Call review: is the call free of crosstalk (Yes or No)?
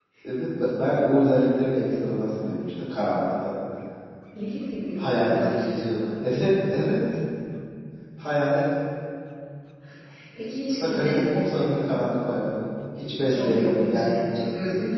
No